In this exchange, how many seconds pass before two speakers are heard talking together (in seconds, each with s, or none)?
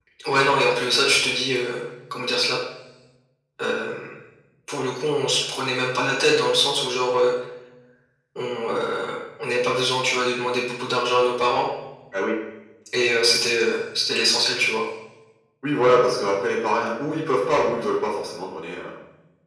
none